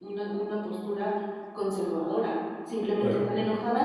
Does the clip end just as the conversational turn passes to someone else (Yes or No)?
No